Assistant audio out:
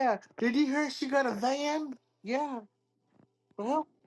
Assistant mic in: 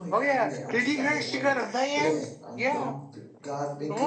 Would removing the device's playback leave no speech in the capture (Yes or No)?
No